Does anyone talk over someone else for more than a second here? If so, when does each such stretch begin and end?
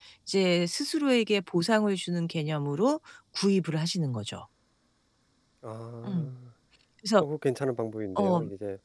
none

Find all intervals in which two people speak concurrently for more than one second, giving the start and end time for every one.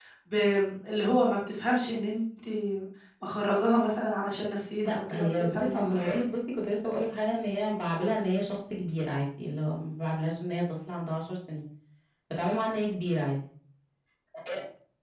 4.8-6.2

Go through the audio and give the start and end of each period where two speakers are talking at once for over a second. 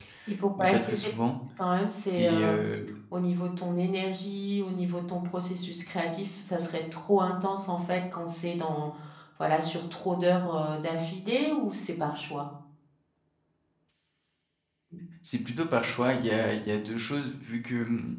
none

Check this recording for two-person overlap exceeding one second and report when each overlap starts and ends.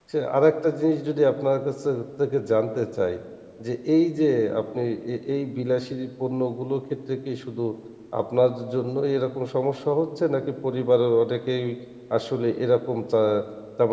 none

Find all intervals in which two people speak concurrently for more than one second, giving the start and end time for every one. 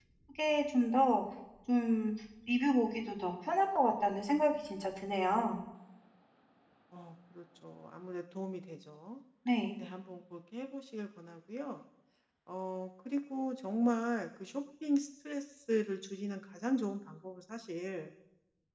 none

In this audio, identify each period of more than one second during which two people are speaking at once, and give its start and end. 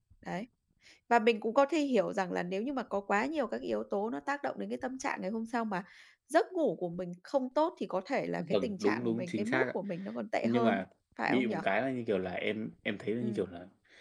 8.4-9.7

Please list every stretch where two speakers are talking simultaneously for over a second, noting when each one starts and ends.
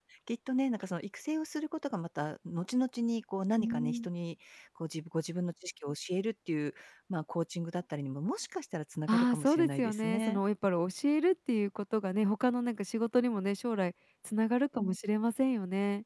9.1-10.4

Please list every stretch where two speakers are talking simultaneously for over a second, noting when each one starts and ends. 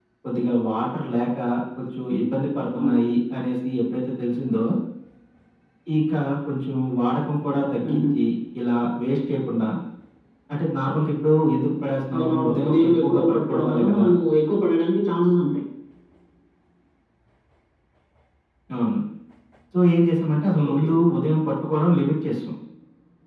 12.1-14.0

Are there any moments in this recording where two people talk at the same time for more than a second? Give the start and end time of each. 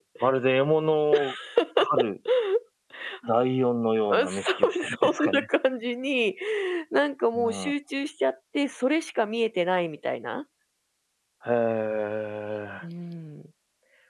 4.1-5.5

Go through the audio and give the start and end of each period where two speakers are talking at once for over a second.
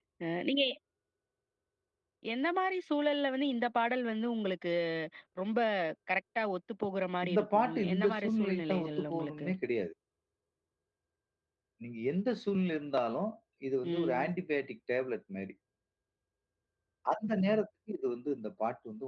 7.2-9.5

